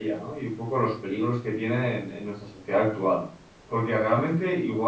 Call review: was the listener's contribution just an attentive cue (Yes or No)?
Yes